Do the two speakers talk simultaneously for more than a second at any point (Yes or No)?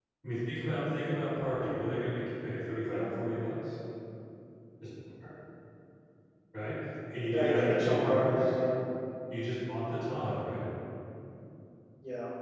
Yes